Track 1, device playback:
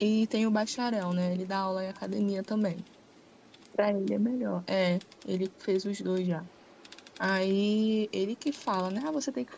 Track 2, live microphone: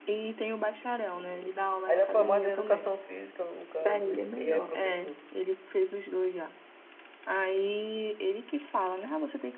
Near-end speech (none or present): present